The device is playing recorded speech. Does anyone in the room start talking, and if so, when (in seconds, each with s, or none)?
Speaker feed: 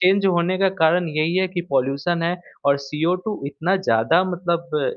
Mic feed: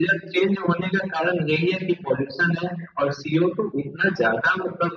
none